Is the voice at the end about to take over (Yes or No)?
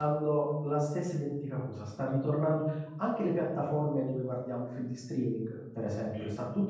No